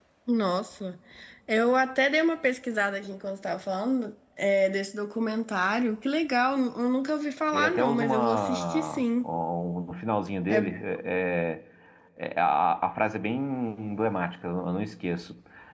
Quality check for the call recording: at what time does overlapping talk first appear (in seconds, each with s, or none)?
7.5 s